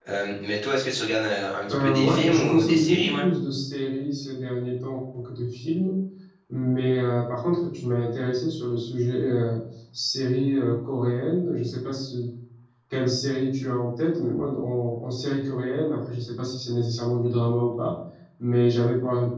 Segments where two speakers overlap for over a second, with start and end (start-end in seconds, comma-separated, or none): 1.7-3.3